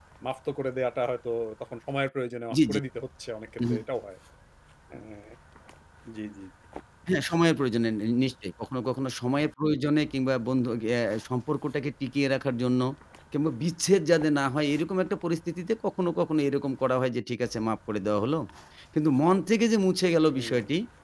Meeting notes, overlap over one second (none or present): none